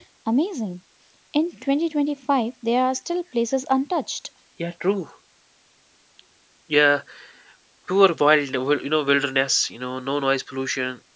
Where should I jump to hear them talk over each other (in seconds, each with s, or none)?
none